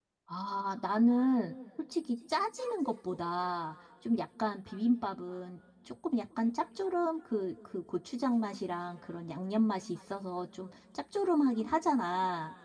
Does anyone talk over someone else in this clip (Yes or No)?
No